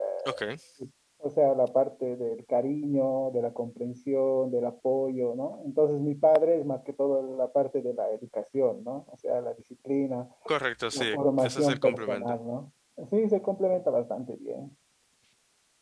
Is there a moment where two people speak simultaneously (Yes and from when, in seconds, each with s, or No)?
Yes, from 10.9 s